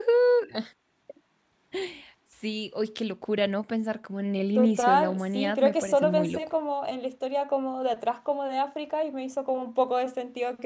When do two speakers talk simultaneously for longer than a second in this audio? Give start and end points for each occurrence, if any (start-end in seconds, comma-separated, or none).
4.6-6.4